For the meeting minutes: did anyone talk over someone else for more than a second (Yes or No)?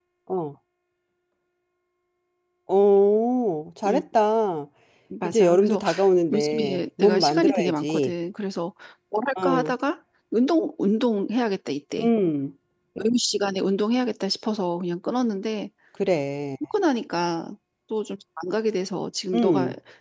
Yes